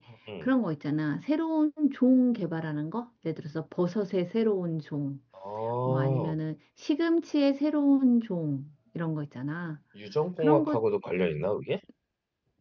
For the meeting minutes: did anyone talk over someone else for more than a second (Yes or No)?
No